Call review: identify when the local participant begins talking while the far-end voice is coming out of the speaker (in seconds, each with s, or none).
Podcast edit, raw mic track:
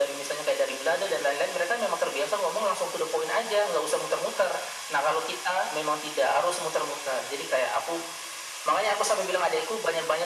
none